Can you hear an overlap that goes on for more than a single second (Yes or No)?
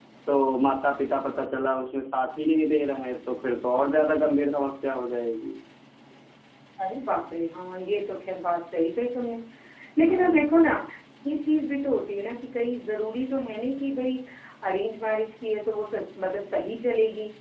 No